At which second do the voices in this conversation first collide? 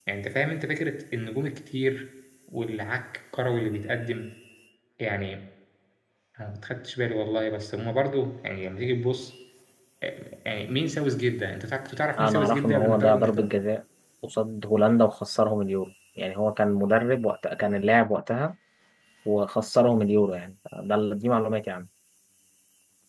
12.2 s

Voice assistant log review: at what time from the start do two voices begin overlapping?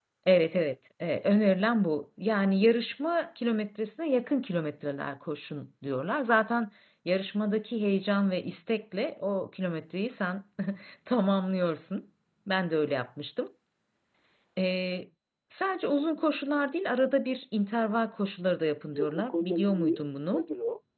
18.9 s

